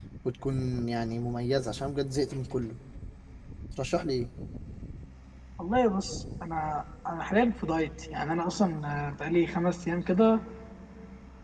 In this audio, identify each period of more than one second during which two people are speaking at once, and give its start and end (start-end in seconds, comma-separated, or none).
none